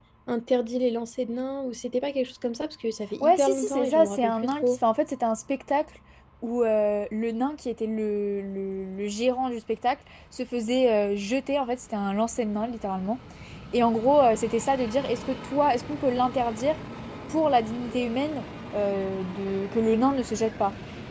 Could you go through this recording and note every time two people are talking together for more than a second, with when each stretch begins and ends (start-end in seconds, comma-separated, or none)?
3.2-4.6